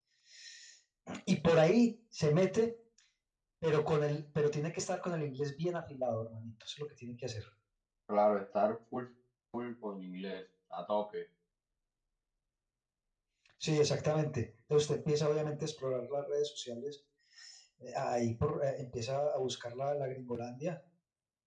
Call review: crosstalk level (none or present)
none